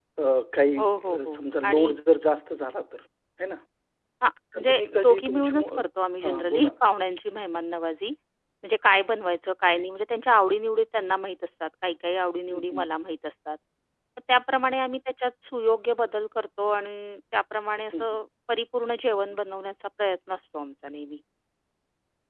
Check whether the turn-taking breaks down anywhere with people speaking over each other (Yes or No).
Yes